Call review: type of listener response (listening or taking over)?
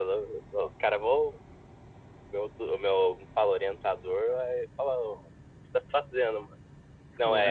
listening